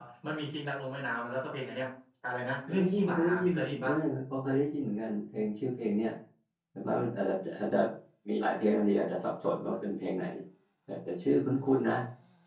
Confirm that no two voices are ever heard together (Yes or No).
No